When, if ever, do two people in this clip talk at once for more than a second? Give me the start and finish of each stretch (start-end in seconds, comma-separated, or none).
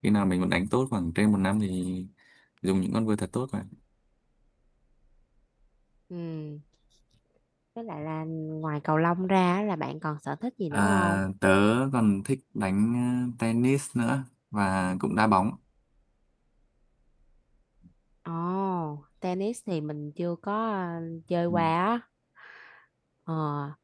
none